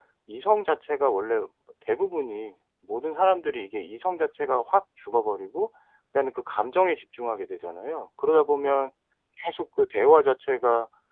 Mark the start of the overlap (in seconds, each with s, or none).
none